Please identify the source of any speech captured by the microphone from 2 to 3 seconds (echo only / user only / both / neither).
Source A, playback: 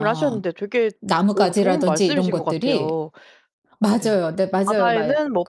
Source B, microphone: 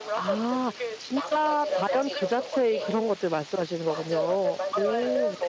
both